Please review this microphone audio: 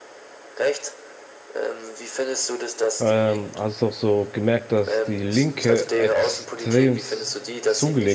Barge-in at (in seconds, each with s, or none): 3.0 s